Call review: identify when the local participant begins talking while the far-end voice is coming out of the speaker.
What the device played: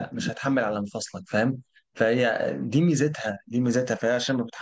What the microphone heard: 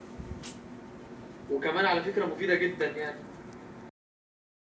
1.5 s

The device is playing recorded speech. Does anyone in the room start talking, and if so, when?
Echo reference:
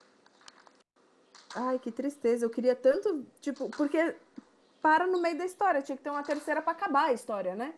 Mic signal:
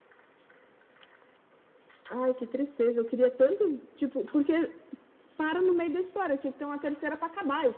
none

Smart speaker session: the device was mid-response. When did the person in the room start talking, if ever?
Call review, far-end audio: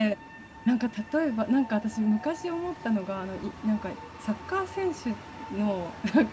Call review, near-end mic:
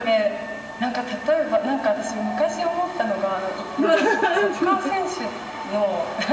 3.8 s

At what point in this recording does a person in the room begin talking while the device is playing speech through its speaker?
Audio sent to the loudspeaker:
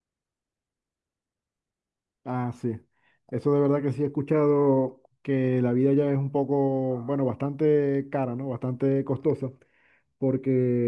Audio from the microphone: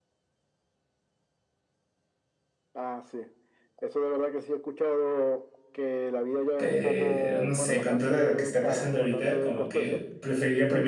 6.6 s

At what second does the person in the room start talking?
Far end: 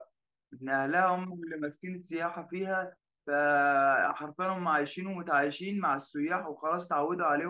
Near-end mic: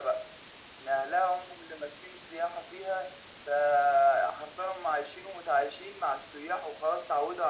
none

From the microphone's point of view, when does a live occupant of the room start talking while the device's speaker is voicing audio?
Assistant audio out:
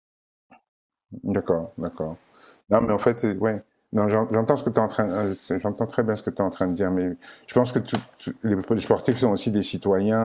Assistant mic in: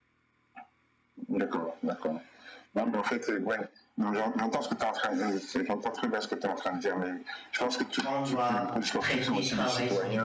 8.0 s

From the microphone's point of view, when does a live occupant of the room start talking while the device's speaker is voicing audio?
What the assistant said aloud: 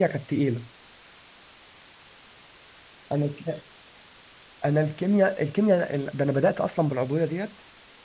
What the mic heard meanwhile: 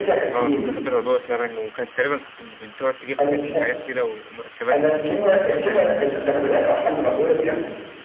0.3 s

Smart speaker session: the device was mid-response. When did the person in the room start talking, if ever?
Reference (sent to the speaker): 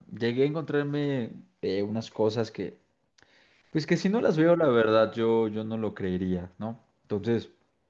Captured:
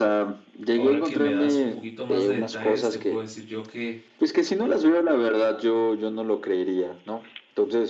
0.7 s

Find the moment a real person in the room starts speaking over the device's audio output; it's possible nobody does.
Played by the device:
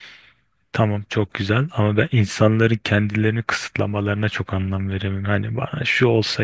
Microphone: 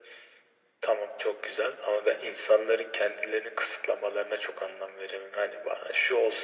none

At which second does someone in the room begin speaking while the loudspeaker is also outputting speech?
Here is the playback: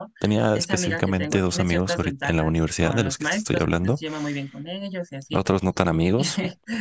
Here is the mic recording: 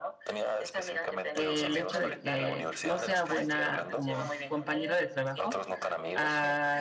1.3 s

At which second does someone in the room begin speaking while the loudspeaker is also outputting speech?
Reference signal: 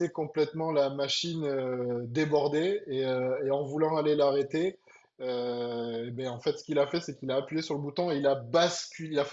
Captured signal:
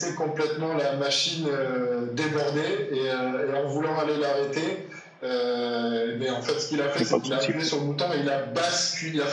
7.0 s

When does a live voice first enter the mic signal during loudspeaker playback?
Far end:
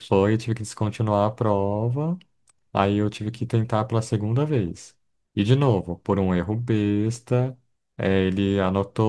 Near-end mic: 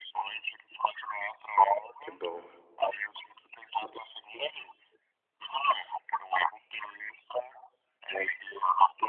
2.0 s

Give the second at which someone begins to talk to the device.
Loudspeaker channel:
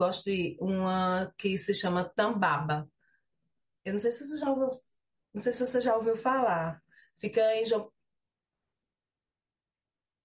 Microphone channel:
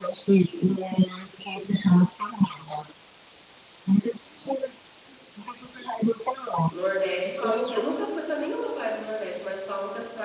6.7 s

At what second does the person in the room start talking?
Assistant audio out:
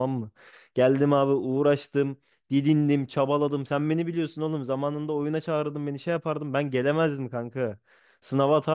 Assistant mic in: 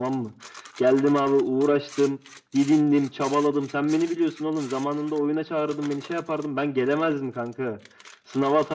none

